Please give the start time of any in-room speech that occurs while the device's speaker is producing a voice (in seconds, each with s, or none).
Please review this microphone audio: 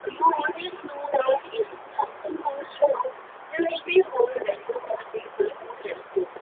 none